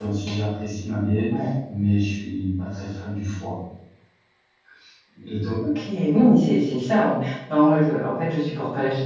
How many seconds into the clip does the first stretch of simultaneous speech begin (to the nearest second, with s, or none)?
none